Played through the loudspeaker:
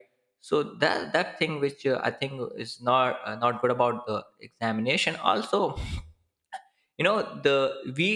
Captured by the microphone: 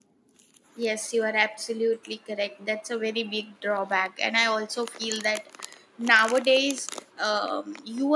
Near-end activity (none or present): present